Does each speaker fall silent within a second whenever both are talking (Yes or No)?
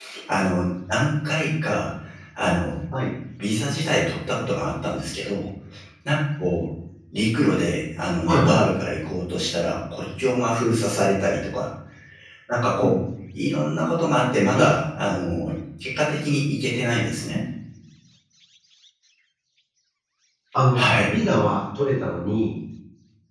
Yes